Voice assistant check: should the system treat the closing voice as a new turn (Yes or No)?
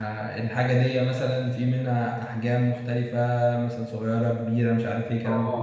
Yes